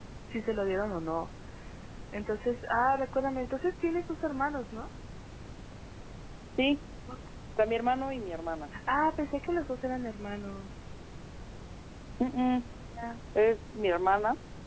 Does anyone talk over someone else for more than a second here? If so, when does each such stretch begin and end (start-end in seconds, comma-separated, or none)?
none